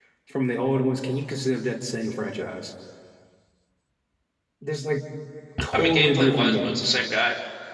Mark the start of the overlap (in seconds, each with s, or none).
5.7 s